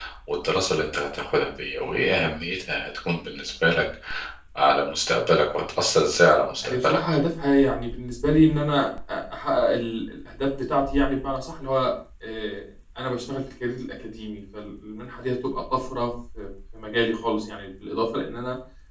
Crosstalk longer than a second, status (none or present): none